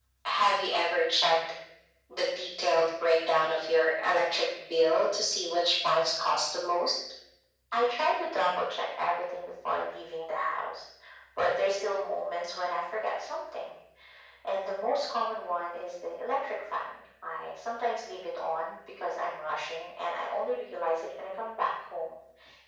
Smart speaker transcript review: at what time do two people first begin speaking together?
none

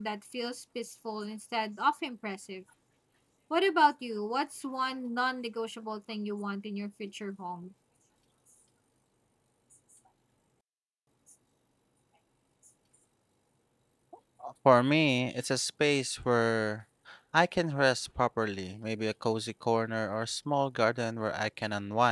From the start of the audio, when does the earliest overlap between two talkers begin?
none

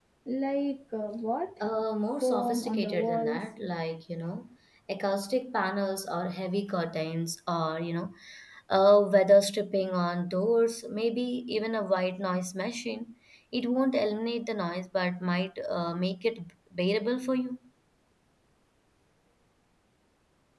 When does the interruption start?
2 s

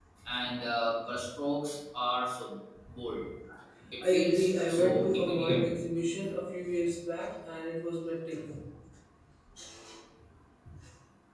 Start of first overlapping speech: 4 s

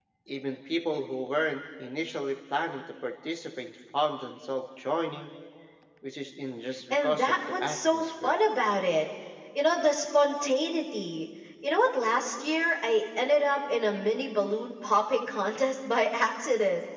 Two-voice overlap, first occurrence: 7 s

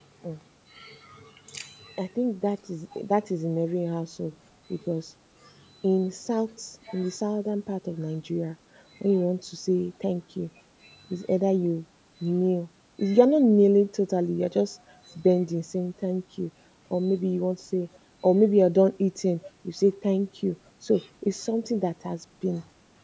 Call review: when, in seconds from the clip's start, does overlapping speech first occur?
none

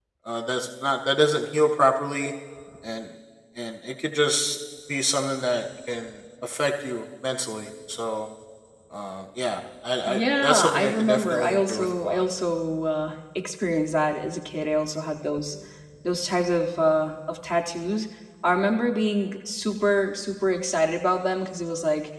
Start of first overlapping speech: 10 s

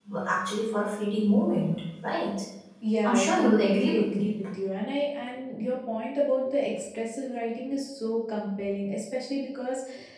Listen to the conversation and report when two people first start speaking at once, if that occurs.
3 s

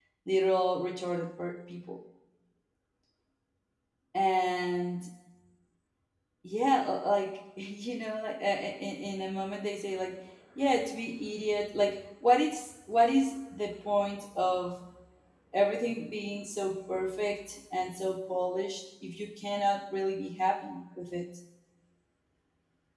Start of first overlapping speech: none

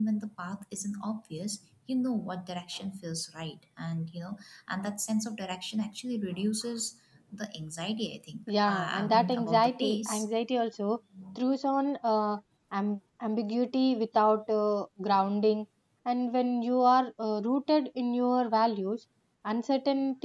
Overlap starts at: 8 s

